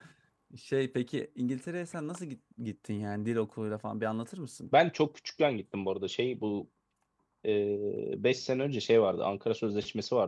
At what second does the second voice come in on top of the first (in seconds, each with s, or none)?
none